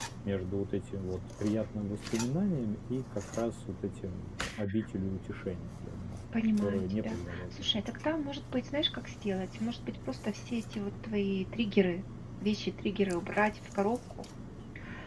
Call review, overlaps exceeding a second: present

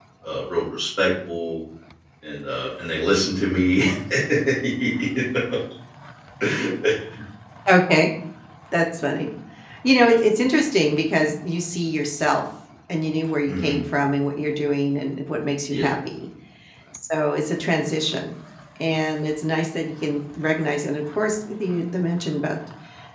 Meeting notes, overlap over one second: none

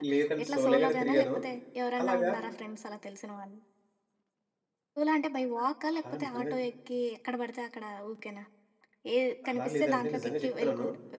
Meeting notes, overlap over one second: present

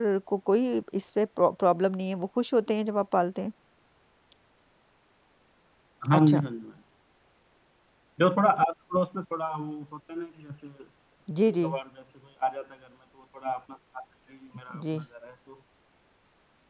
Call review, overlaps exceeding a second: none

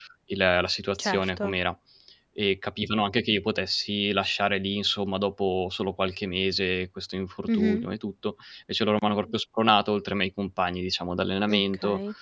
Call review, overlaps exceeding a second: none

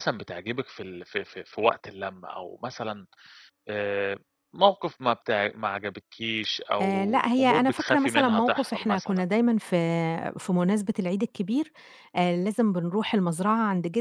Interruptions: present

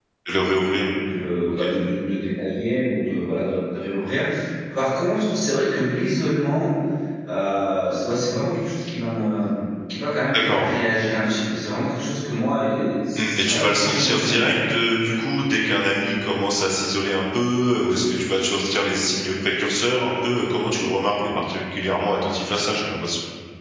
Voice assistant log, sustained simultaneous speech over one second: present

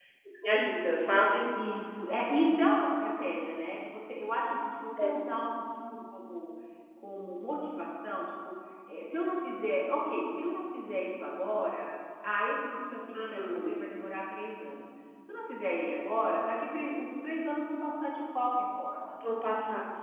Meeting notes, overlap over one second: none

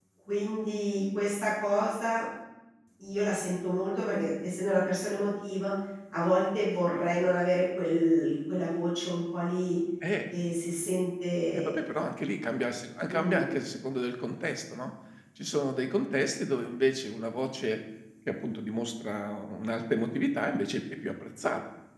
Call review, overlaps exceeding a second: none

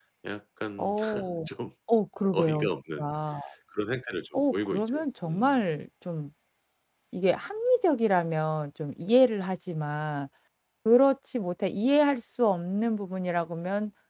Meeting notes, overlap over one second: present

